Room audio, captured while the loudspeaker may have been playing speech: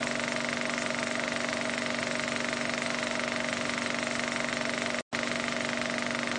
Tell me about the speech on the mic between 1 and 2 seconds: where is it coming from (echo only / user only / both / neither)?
neither